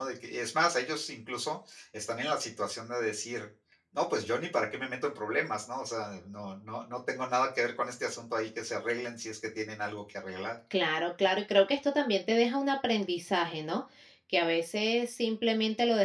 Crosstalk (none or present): none